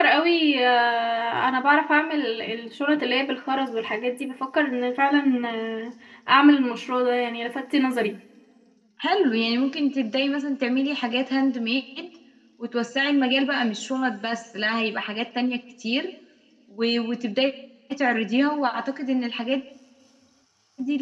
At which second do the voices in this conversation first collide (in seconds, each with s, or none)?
none